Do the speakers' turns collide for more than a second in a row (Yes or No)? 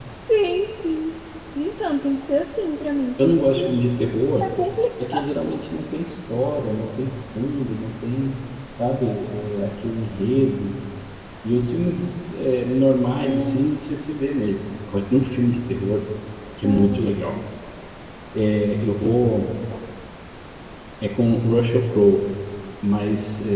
No